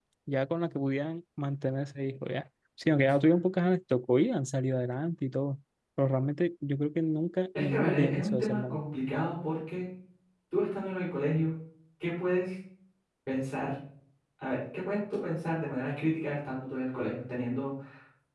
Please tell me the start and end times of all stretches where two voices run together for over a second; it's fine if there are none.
7.6-8.8

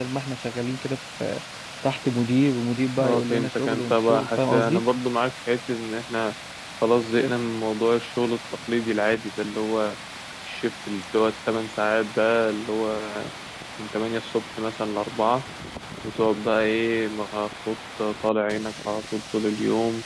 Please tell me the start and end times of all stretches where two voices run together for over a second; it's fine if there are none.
3.0-4.8

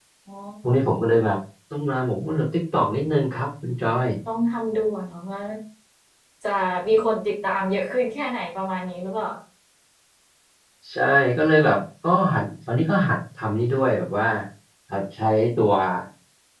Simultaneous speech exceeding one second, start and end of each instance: none

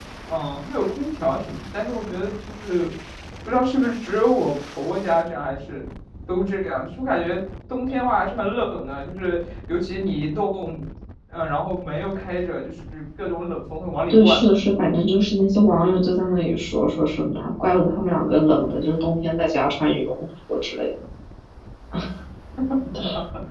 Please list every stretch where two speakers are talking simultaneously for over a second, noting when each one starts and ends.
none

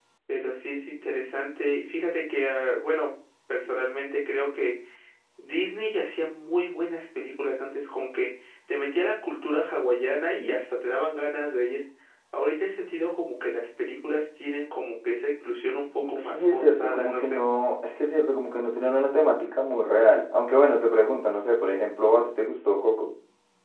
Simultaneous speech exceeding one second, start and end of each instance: 16.1-17.4

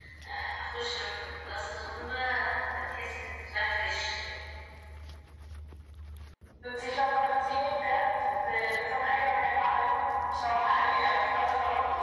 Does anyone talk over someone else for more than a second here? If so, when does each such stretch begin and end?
none

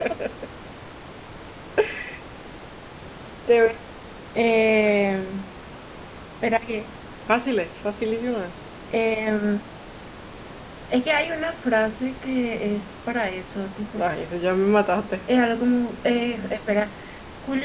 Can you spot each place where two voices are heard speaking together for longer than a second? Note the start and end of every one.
none

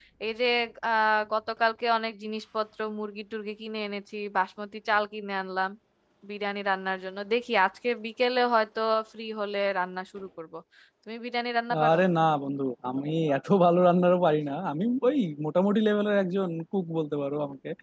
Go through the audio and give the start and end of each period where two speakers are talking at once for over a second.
none

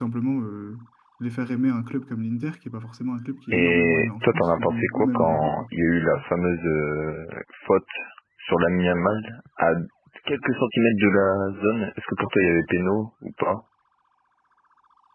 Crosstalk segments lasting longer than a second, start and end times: 3.5-5.6

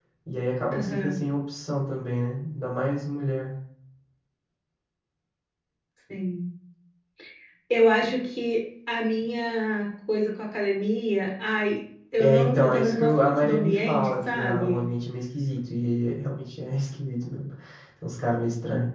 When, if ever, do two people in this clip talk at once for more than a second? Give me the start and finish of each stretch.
12.2-14.8

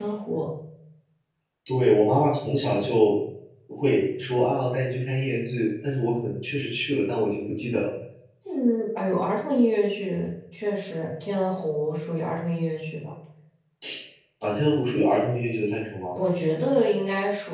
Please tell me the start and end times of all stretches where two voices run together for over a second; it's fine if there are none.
none

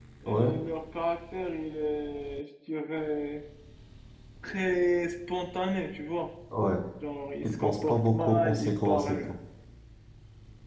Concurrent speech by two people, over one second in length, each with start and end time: 7.4-9.4

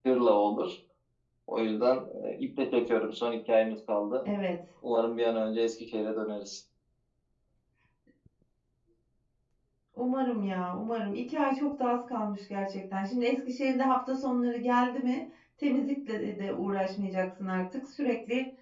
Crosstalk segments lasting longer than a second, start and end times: none

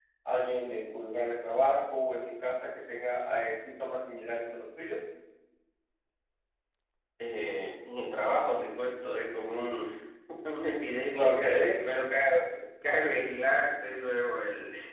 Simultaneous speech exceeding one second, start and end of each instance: none

